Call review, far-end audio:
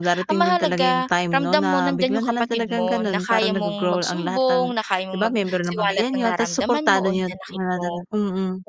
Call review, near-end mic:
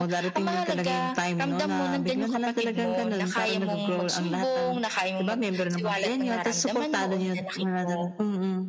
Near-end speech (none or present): none